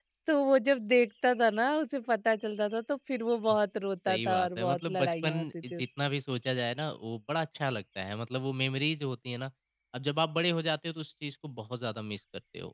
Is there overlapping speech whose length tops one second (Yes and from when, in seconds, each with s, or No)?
Yes, from 4.1 s